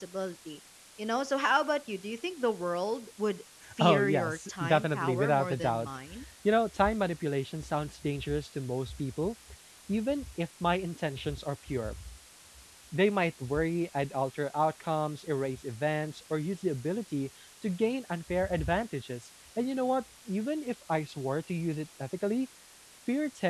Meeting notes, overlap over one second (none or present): present